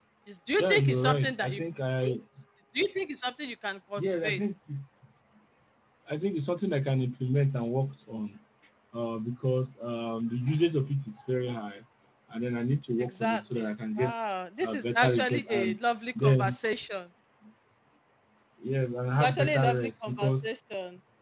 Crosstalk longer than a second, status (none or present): present